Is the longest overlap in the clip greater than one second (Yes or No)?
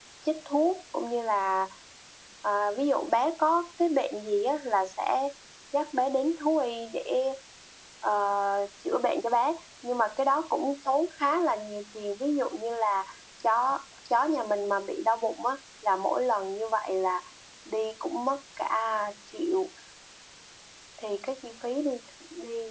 No